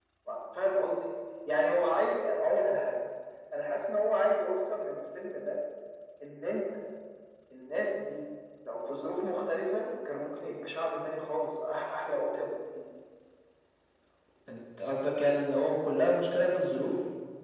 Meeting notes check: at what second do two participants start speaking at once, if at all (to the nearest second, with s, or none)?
none